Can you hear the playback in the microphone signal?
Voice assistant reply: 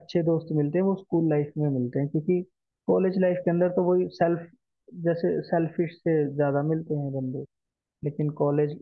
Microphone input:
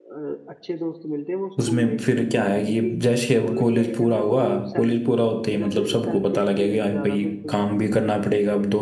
Yes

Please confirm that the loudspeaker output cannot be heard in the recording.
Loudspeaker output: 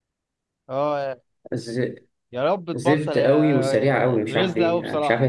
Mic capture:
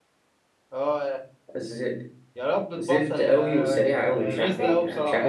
No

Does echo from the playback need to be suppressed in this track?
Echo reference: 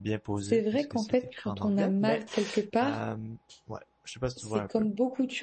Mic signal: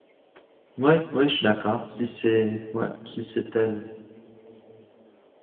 No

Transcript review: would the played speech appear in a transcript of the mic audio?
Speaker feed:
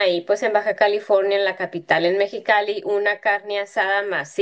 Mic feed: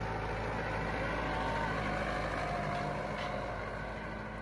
No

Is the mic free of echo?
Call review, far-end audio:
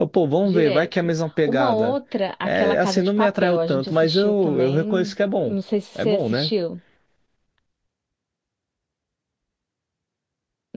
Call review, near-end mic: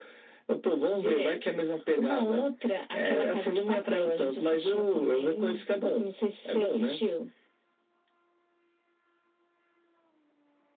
No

